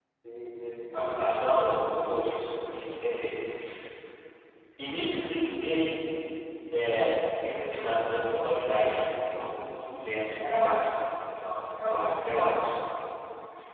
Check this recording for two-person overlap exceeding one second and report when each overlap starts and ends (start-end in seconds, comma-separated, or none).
0.9-3.2